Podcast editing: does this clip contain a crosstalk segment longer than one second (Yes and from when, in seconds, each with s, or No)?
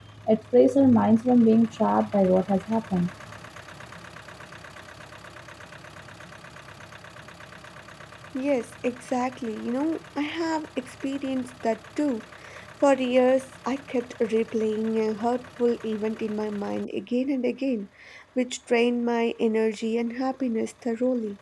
No